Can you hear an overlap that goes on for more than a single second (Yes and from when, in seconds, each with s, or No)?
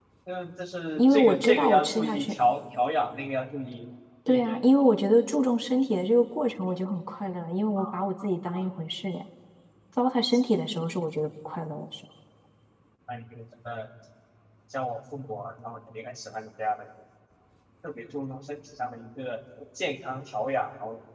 Yes, from 1.0 s